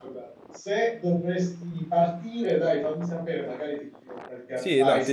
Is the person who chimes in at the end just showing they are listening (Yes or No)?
No